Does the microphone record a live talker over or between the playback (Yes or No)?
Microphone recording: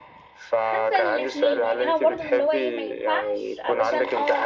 Yes